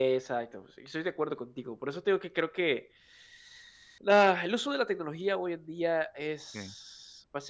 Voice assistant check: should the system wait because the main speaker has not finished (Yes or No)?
Yes